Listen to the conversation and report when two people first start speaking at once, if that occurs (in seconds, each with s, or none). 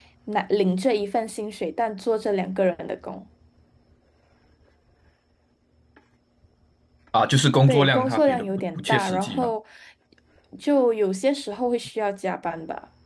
7.7 s